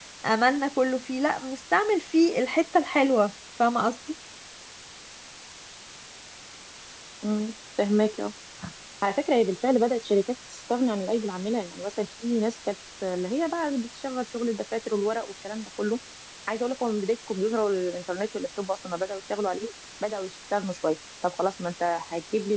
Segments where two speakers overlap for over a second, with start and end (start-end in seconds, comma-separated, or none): none